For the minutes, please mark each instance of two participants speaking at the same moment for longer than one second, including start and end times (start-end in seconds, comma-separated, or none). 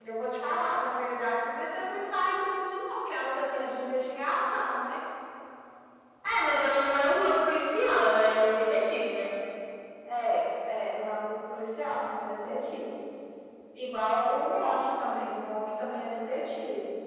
none